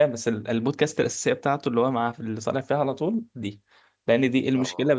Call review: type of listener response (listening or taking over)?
listening